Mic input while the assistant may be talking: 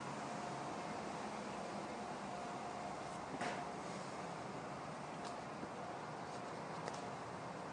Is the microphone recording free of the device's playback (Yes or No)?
Yes